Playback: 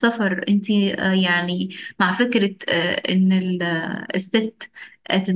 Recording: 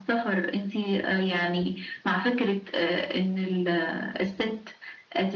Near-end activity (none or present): none